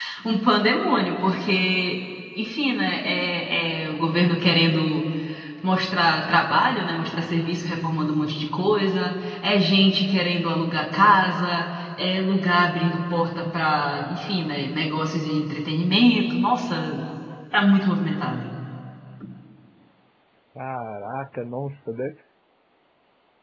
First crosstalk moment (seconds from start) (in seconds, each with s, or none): none